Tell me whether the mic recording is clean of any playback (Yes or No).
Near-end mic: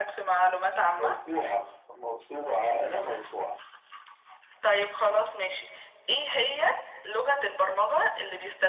No